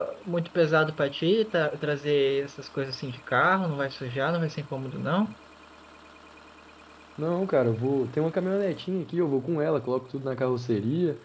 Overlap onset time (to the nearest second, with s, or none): none